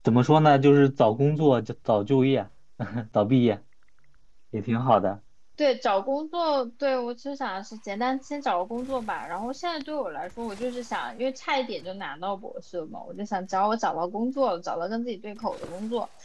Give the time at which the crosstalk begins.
none

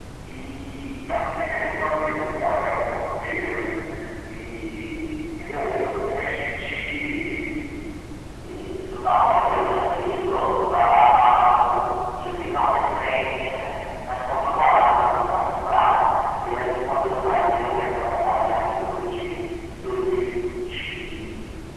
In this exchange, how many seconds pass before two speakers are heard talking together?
none

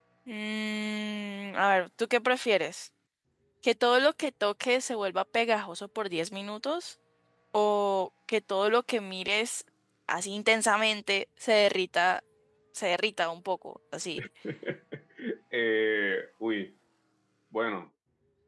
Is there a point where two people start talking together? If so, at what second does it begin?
none

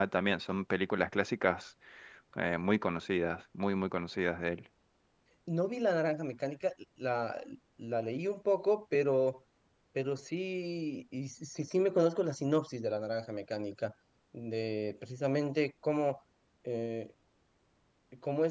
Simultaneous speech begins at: none

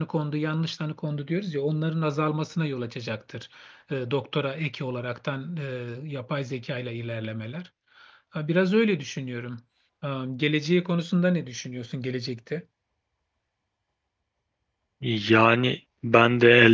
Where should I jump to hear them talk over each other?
none

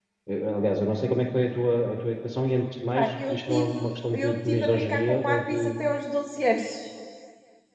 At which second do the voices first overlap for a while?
3.0 s

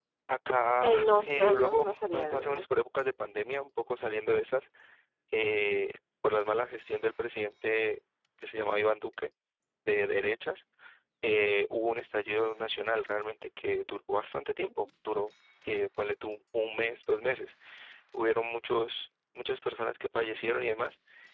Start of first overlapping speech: 0.8 s

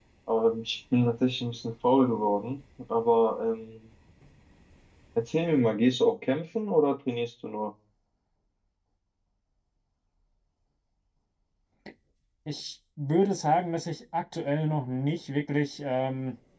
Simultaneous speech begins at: none

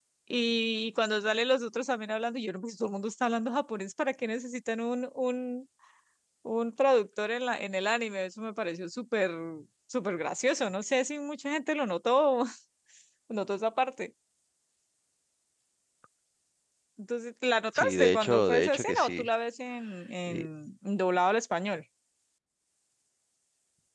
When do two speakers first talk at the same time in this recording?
17.8 s

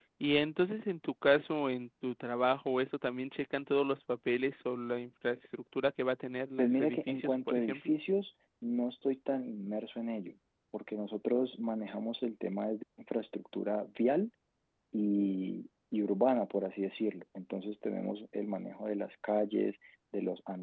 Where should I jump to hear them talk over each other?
6.6 s

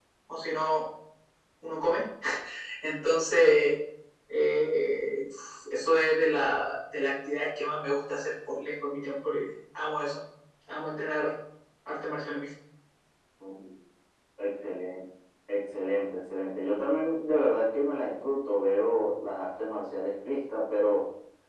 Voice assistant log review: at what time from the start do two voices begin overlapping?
none

